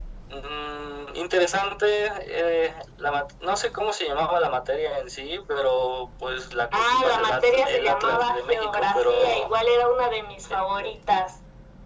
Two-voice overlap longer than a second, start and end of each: 6.7-9.5

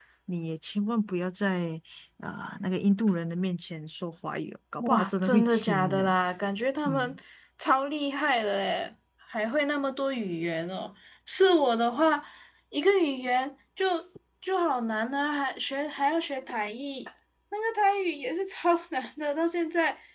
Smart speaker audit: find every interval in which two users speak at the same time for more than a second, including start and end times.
4.8-6.1

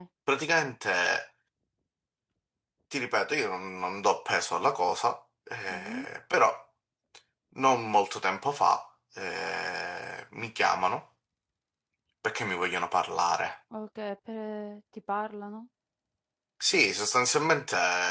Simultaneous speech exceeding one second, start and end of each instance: none

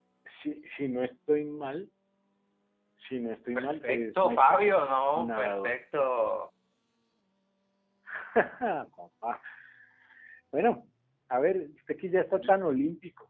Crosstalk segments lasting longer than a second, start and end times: 3.6-5.7

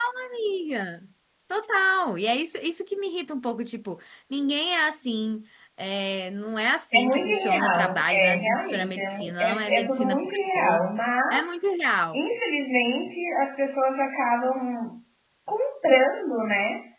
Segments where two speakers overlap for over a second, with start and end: 6.9-10.8

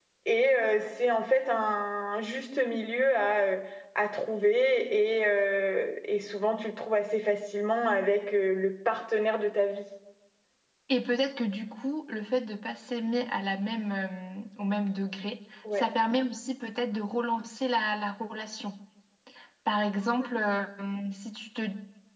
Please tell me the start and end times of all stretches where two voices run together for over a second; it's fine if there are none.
none

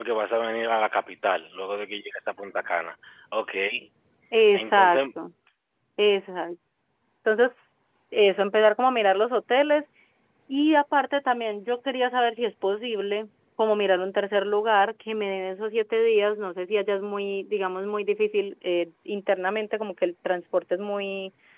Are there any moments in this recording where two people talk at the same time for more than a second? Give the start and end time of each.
none

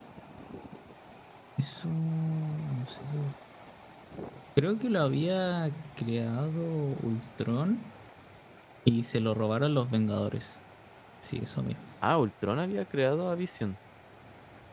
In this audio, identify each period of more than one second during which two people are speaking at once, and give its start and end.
none

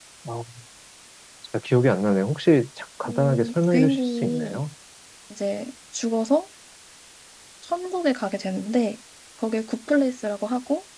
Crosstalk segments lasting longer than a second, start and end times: 3.0-4.6

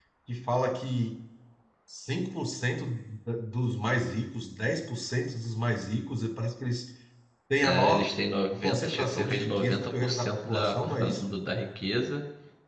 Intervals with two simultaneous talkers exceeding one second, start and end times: 8.6-11.3

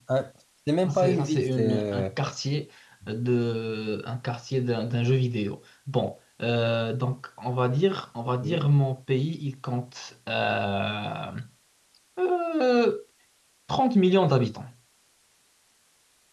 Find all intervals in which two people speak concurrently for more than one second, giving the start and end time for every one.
0.8-2.0

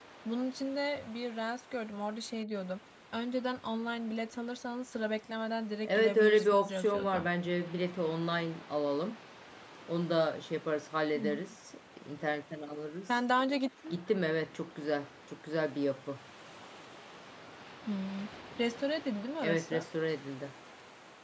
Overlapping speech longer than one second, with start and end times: 5.8-7.3

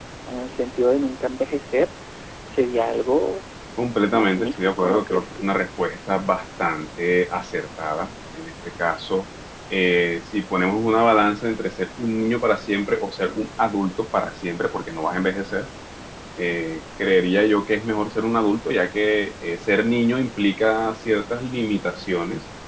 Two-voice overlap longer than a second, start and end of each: 4.1-5.5

